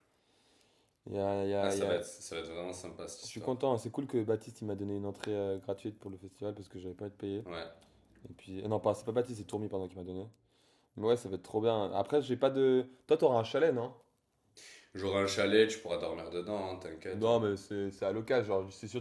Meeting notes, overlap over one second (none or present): none